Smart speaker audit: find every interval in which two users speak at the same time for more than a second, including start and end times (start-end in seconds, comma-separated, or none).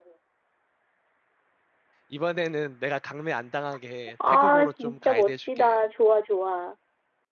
4.3-5.8